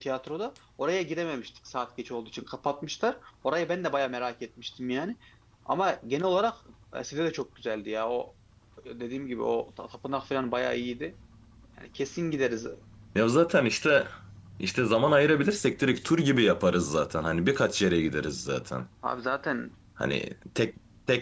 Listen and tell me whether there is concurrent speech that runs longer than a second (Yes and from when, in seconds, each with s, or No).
No